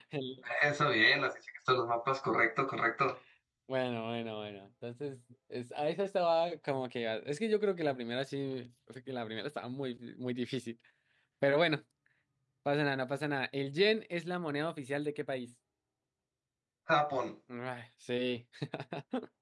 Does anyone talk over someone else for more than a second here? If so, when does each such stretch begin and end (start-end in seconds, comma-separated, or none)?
none